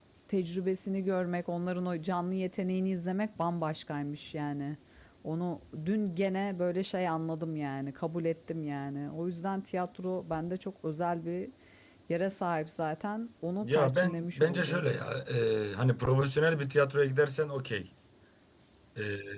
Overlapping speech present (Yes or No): Yes